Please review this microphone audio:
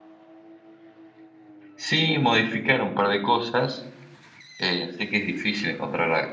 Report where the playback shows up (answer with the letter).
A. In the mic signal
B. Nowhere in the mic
B